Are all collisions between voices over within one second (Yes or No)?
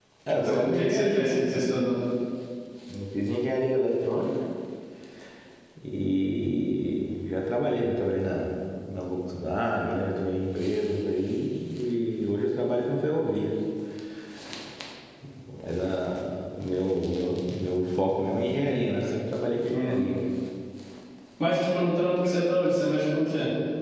No